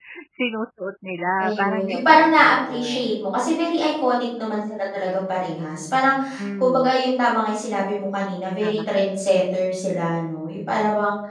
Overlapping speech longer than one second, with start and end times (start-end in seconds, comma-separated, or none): 1.4-3.1